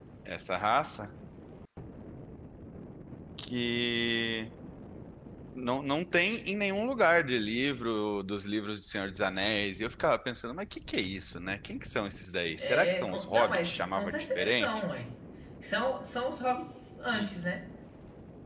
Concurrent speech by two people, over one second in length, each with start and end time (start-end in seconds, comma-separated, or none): 12.6-14.7